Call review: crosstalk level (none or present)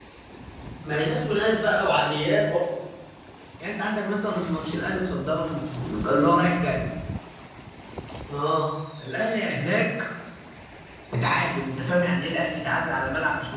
none